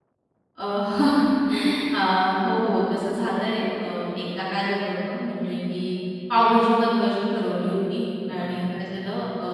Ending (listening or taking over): listening